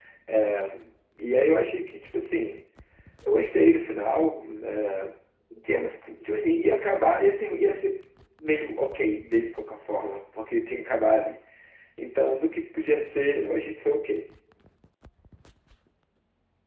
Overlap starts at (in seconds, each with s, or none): none